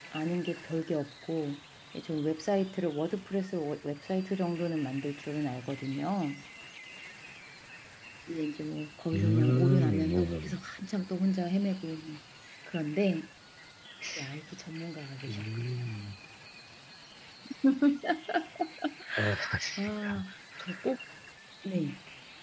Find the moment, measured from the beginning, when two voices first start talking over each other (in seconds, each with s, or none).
9.1 s